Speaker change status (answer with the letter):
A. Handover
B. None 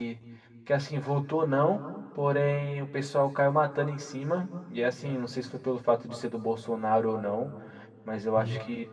B